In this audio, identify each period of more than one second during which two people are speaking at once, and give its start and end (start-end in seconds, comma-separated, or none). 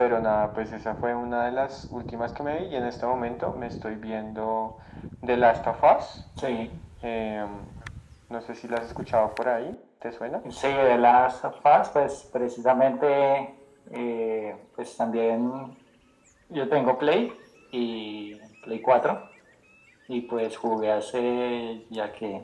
none